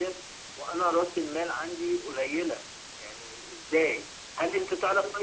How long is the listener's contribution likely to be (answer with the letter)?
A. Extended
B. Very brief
B